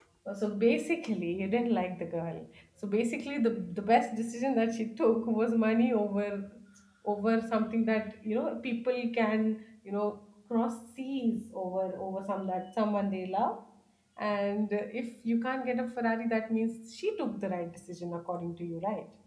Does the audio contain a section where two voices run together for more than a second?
No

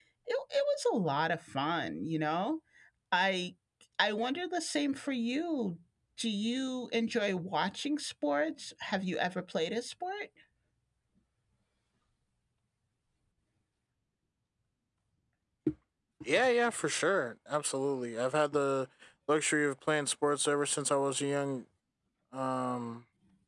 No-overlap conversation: Yes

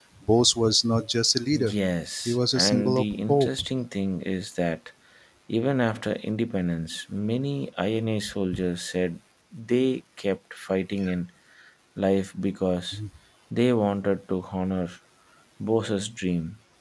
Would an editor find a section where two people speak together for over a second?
Yes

